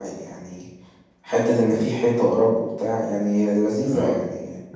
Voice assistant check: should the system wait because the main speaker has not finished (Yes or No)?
No